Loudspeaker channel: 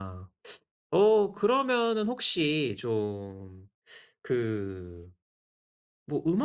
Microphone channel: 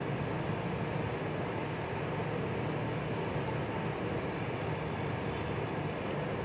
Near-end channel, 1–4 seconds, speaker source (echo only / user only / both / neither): neither